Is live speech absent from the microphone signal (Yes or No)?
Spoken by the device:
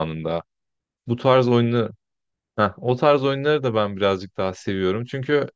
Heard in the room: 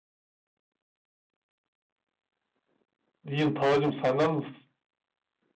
No